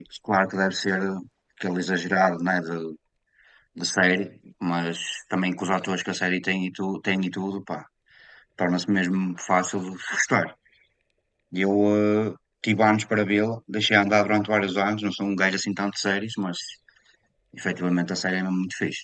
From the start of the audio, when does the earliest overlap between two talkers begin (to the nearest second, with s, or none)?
none